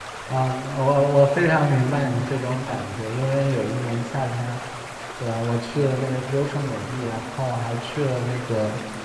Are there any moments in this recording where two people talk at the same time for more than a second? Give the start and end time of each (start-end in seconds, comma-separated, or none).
none